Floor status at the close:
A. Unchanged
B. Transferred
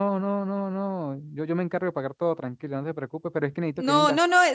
B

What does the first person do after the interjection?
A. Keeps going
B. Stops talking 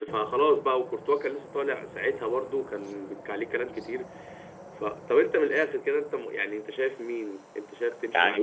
B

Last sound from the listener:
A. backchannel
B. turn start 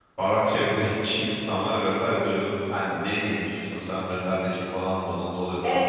B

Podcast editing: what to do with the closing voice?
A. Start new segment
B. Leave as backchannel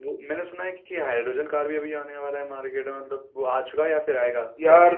A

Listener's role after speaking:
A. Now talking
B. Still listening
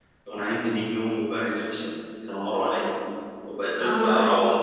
B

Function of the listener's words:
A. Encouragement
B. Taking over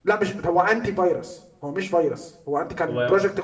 A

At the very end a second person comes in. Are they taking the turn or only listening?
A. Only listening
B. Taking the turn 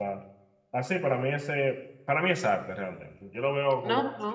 B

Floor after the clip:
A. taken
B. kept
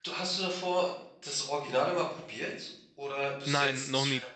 A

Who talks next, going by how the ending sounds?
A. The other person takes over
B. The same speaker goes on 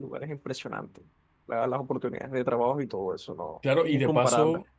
A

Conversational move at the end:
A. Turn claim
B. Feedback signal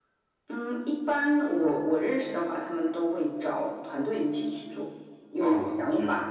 B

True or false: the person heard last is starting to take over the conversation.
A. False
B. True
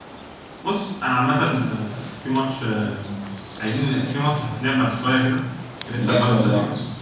A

